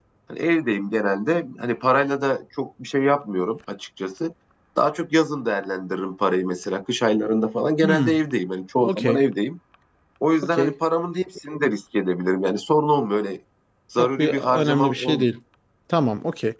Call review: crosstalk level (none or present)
present